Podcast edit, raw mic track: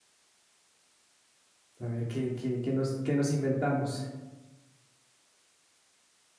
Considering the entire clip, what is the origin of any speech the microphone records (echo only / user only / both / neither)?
user only